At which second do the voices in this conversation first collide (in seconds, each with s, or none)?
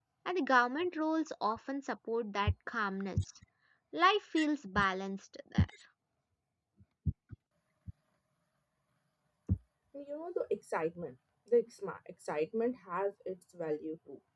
none